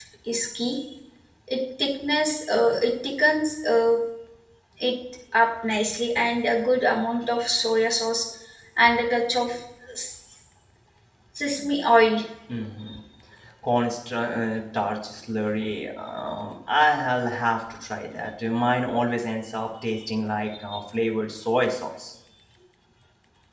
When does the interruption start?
none

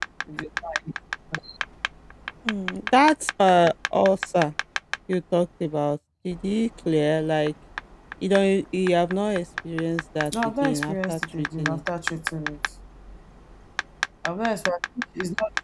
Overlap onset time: 10 s

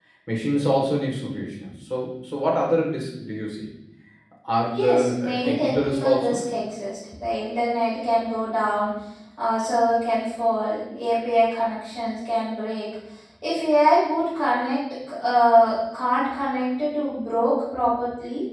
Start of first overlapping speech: 5 s

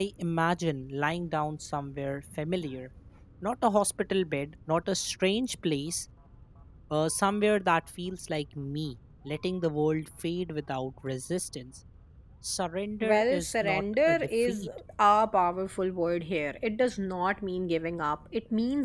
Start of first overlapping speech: 13 s

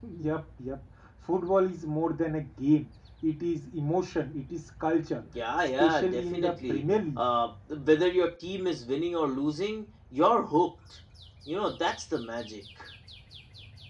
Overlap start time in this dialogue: 5 s

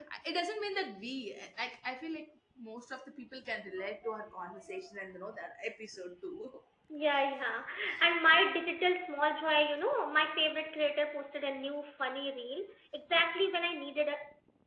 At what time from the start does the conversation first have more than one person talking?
none

